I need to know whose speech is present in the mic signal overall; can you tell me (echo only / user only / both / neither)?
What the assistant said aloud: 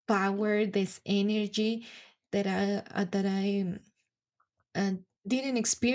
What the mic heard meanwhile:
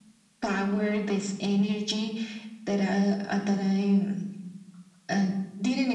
echo only